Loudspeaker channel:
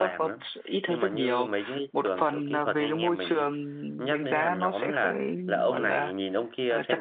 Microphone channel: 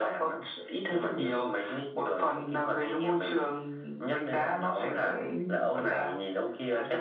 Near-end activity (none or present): none